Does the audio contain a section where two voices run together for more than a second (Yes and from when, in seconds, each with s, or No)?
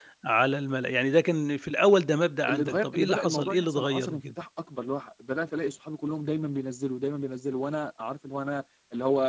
Yes, from 2.5 s